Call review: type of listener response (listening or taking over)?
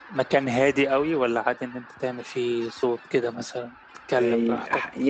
taking over